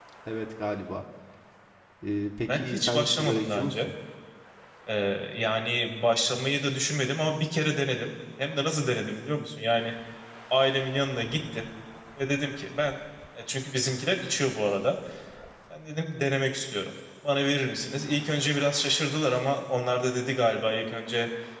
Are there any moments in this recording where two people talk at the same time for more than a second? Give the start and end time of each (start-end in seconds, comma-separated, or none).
2.5-3.8